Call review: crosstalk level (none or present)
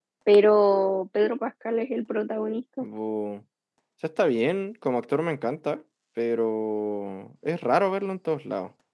none